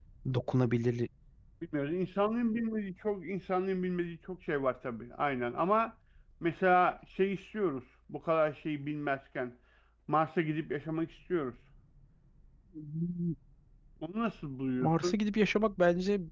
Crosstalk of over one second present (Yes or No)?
No